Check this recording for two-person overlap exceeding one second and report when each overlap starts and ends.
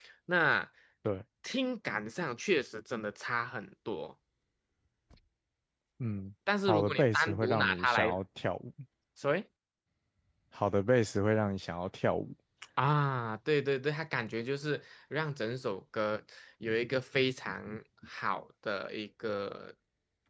6.7-8.2

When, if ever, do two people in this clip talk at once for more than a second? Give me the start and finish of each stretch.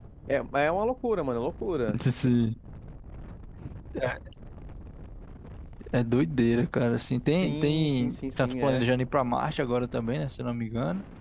7.3-8.8

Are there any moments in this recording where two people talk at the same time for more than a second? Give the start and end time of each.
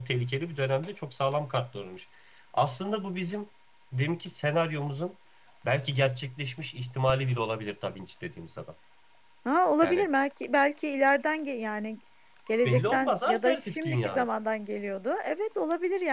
12.7-14.3

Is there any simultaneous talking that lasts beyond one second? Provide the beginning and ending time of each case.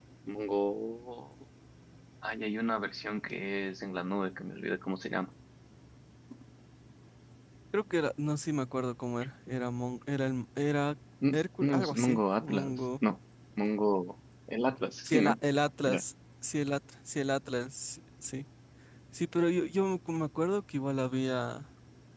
11.3-12.8

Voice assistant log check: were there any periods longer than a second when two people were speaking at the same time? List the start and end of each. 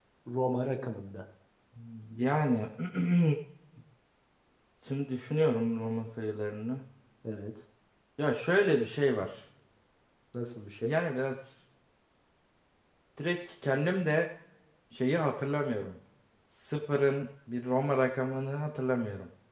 none

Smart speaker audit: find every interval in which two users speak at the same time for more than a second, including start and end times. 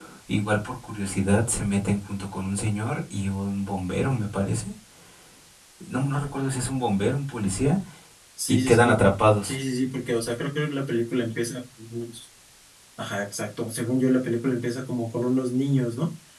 none

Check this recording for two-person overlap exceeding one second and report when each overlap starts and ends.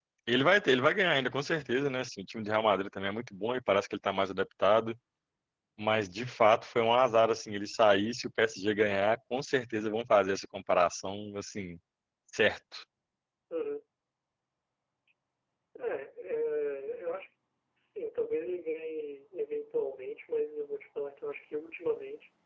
none

